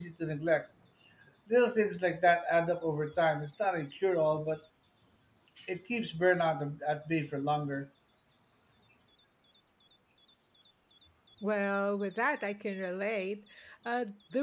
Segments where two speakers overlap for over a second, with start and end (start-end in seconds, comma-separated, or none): none